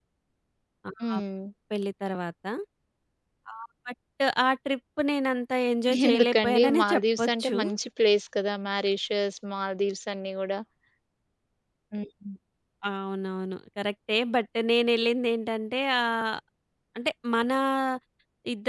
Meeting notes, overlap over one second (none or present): present